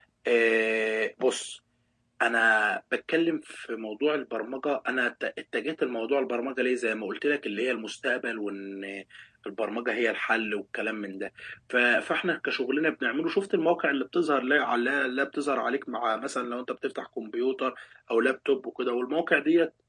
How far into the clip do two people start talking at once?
none

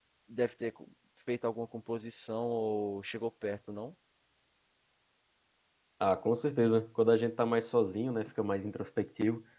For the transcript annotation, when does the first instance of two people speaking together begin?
none

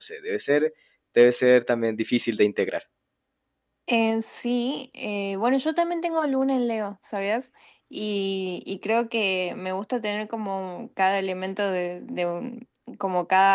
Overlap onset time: none

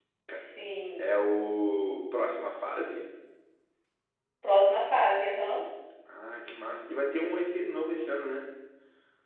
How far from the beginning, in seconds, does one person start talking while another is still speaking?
none

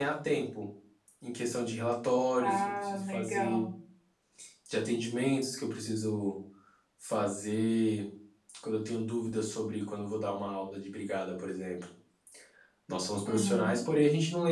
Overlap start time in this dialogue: 2.4 s

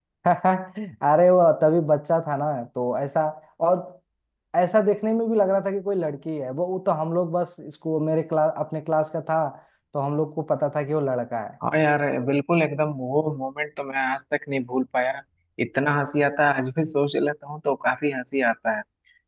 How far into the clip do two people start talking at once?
none

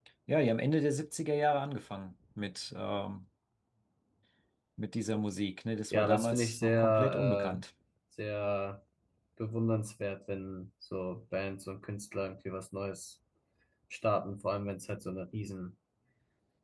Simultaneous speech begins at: 5.9 s

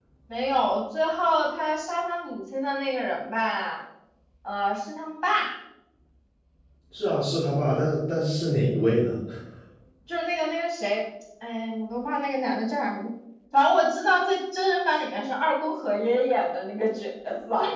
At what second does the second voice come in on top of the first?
none

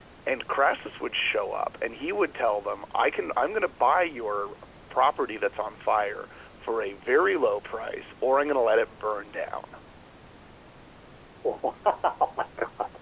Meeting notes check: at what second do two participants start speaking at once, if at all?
none

